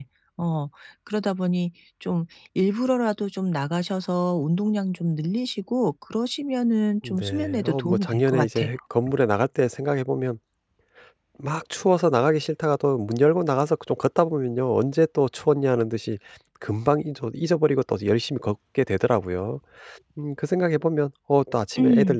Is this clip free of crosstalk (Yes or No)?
No